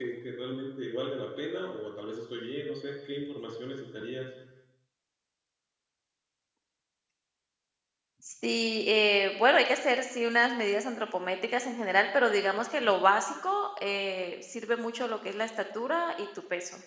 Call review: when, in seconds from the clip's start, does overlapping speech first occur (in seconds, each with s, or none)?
none